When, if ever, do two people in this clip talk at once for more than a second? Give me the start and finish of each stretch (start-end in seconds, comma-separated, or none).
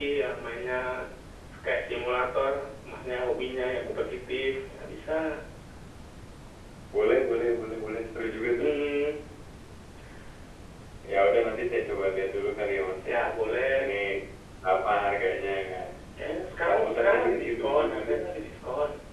16.7-18.1